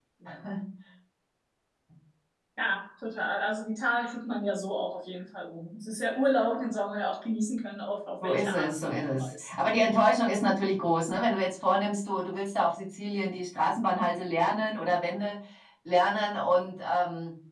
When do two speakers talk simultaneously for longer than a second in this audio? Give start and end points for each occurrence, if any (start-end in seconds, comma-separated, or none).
8.2-9.5